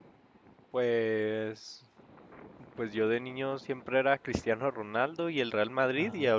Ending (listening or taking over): listening